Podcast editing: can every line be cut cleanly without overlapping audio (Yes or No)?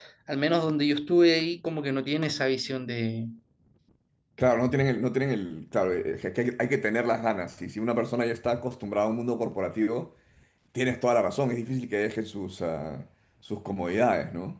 Yes